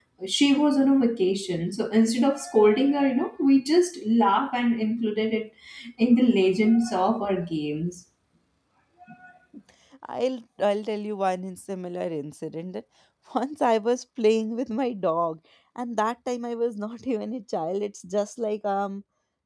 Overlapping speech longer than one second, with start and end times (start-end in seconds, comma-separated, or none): none